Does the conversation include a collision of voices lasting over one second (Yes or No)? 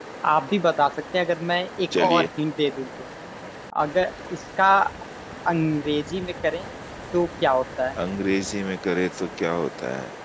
No